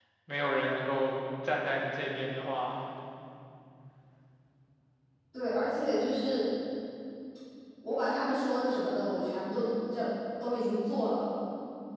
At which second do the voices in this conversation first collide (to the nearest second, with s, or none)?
none